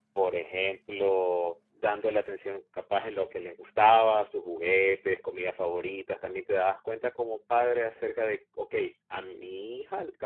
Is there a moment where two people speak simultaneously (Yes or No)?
No